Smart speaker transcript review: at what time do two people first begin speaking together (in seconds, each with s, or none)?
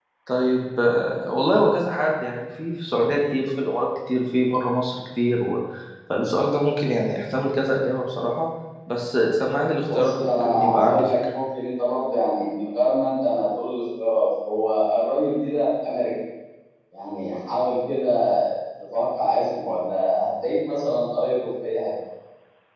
9.8 s